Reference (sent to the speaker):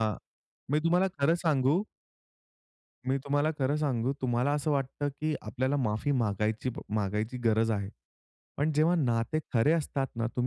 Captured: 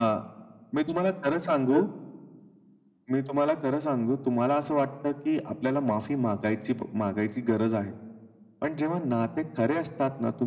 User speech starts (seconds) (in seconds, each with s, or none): 1.5 s